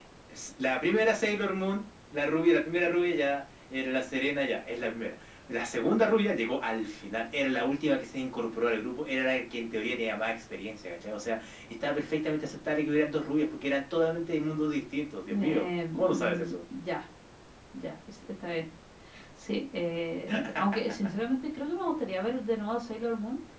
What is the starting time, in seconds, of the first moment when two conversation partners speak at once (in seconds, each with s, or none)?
15.3 s